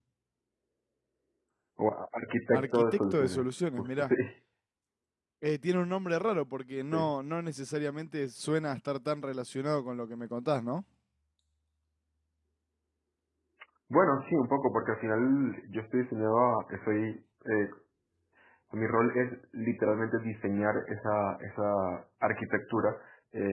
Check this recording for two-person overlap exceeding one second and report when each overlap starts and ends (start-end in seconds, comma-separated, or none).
2.5-4.1